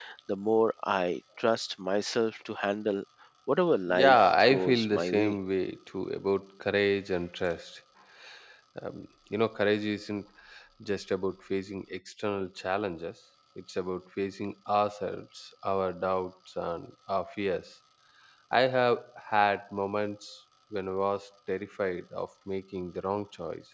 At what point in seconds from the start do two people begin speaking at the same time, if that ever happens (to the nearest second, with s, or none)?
4 s